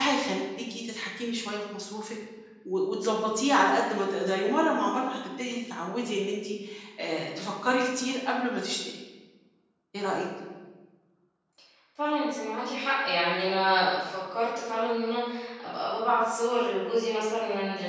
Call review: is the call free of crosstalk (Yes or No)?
Yes